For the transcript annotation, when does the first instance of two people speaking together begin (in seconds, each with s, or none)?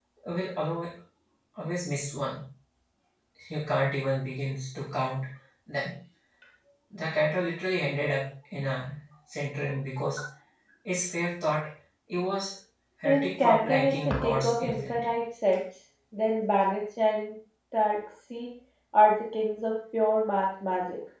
13.0 s